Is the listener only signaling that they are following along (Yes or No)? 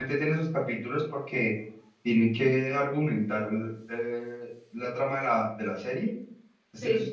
Yes